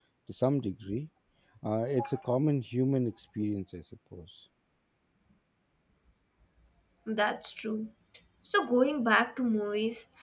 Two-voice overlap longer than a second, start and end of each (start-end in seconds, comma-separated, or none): none